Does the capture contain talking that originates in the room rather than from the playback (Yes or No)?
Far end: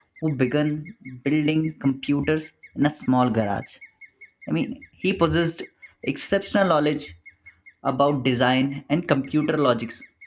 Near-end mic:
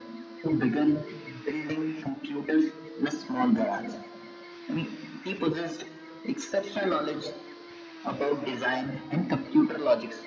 No